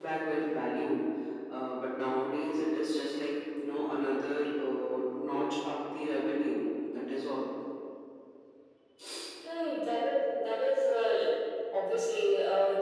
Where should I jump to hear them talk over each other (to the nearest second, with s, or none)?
none